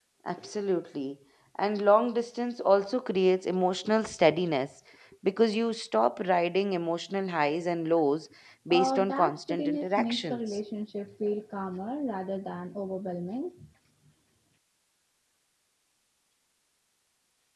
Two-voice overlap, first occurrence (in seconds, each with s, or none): 8.7 s